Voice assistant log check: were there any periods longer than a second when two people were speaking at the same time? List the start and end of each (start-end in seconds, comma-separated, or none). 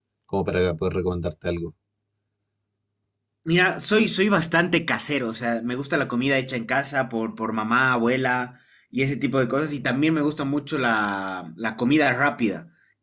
none